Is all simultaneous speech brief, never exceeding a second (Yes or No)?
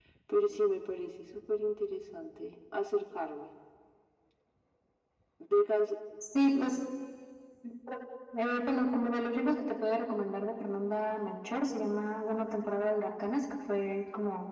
Yes